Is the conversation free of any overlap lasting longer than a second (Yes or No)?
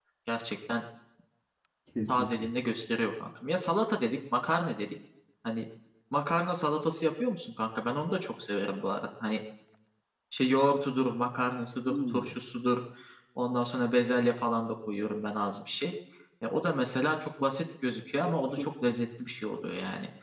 Yes